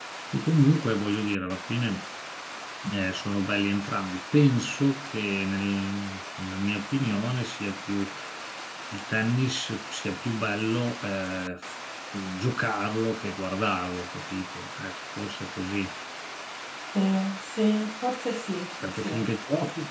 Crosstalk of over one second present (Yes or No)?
No